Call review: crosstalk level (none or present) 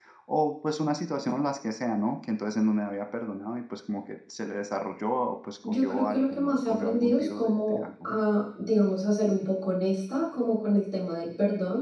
present